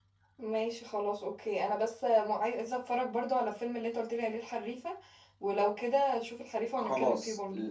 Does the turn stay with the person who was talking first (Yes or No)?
No